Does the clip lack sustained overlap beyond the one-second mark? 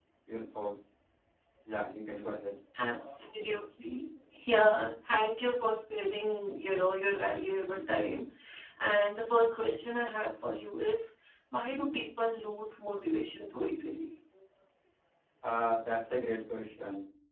Yes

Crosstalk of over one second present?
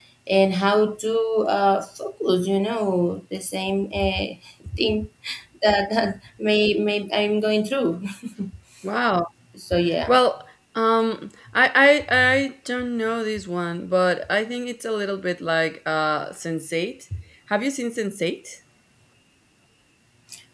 No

